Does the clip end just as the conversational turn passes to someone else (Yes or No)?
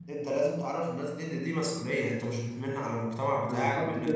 Yes